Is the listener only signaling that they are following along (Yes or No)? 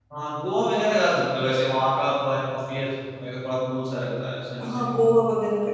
No